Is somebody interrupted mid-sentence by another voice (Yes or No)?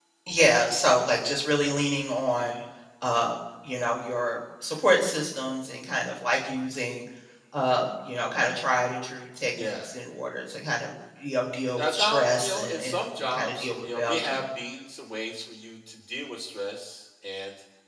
Yes